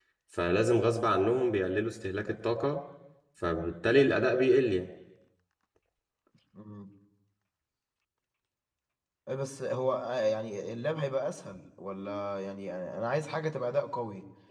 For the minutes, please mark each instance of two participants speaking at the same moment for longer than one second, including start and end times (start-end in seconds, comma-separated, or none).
none